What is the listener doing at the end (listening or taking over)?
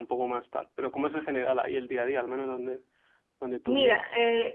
taking over